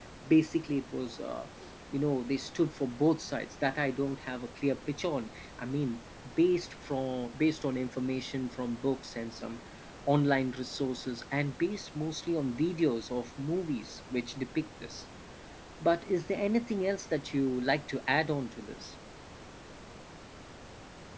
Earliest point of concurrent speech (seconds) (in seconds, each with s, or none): none